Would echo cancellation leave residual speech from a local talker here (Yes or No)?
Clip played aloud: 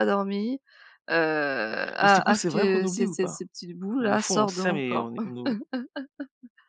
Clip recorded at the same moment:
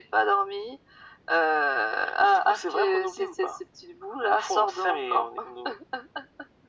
No